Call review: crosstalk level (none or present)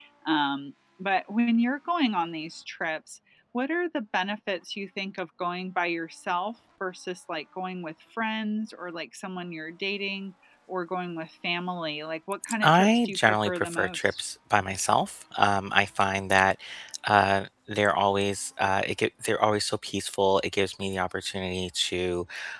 present